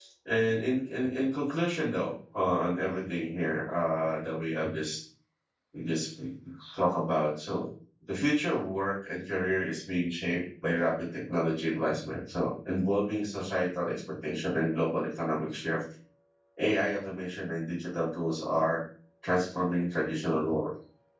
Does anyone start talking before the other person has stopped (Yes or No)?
No